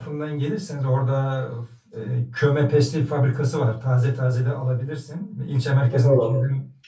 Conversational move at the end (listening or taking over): taking over